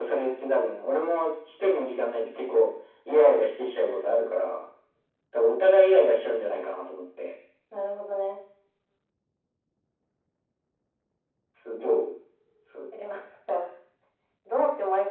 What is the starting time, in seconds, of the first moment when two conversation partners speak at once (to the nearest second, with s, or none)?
none